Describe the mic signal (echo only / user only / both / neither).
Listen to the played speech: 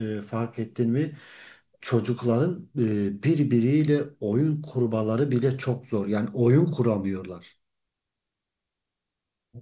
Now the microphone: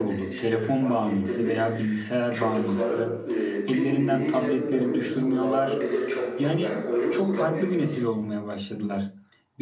both